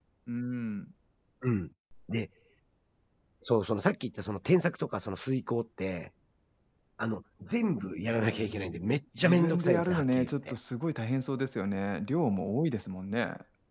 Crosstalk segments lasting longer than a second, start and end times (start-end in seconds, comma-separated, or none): 9.2-10.6